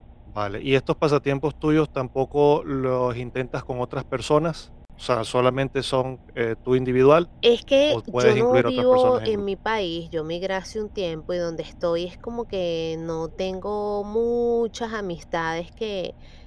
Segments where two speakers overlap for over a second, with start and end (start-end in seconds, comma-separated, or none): 7.9-9.4